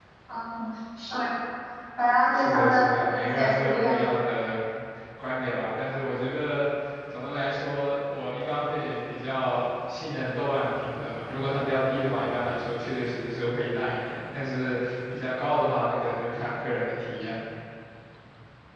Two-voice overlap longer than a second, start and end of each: 2.3-4.1

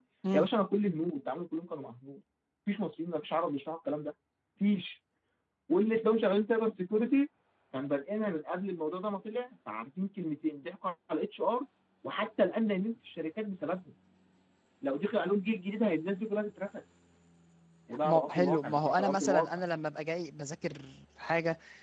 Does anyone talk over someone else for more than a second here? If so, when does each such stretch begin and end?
18.0-19.5

